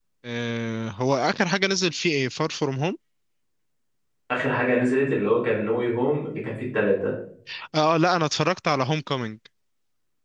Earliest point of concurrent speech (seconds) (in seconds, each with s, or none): none